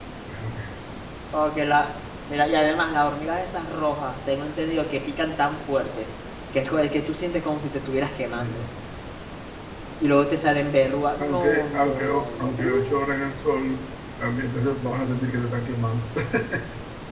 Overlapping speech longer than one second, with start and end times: 11.2-12.9

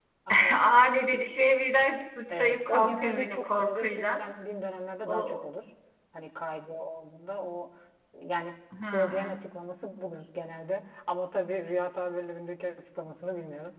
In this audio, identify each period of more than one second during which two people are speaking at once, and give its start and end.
2.3-4.2

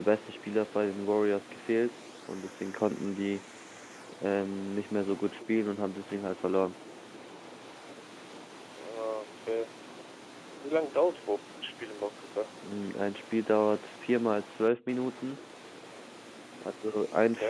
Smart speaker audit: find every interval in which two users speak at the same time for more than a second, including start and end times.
none

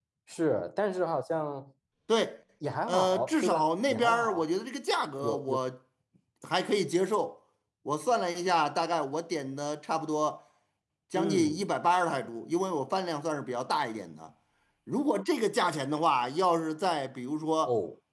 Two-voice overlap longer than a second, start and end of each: 2.9-4.4

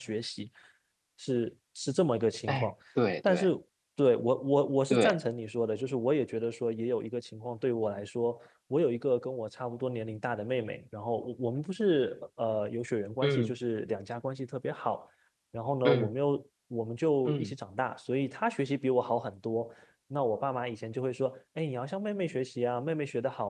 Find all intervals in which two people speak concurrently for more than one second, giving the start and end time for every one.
none

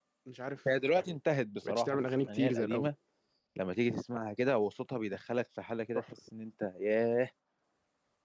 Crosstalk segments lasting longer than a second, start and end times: 1.7-2.9

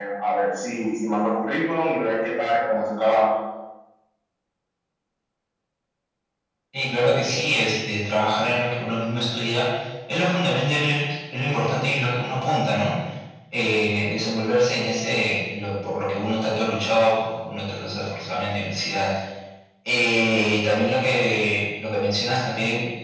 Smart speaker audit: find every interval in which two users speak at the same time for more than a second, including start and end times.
none

